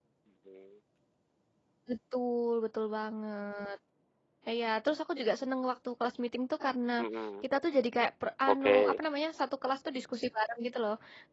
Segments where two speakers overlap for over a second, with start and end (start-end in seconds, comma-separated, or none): none